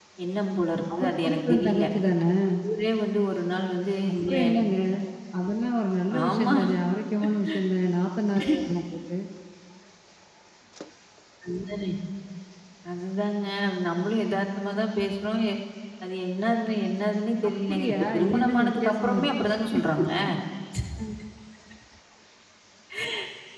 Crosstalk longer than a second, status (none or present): present